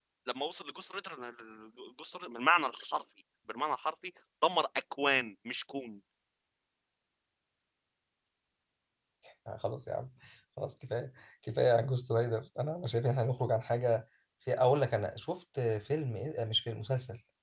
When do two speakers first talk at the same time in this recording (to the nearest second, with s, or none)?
none